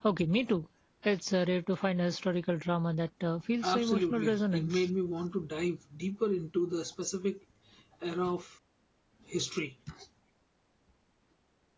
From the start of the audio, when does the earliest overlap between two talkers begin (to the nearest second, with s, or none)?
4 s